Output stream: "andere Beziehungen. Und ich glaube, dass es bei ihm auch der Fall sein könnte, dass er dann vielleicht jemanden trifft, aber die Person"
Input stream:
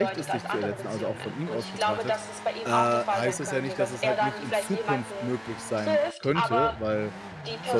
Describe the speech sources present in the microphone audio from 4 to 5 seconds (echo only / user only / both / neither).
both